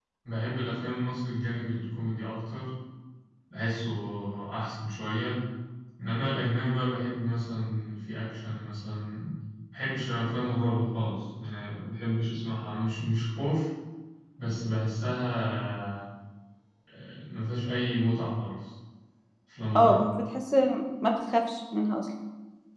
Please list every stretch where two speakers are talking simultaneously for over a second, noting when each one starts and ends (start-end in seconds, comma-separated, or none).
none